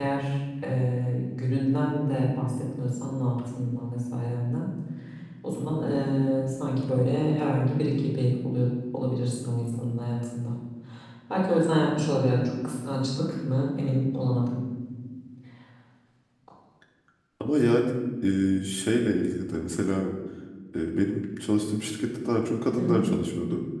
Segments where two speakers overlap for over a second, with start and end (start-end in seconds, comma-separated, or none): none